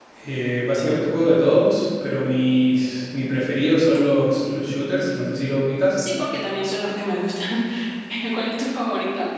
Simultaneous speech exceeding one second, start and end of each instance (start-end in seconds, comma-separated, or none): none